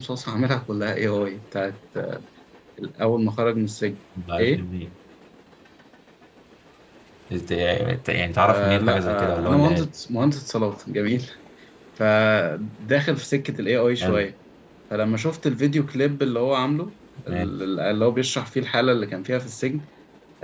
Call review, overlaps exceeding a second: present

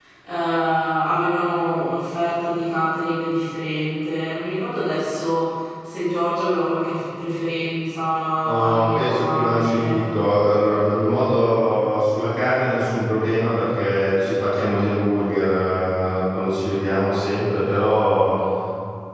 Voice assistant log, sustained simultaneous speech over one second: present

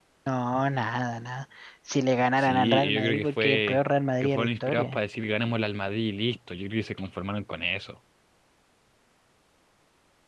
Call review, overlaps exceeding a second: present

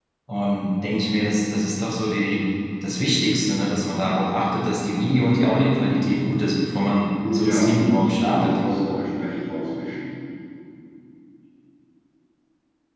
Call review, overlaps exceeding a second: present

